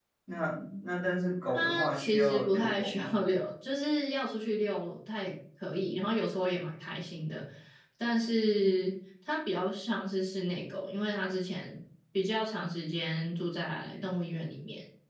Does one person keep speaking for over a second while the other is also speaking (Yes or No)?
Yes